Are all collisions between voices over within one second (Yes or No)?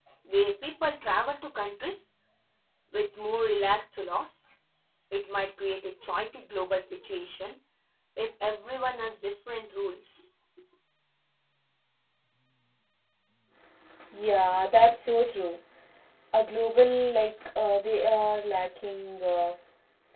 Yes